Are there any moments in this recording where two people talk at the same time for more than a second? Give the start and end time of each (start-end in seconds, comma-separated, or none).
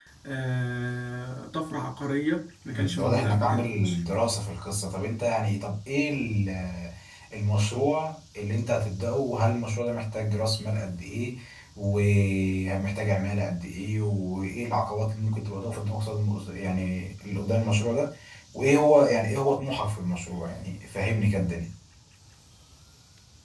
2.7-4.0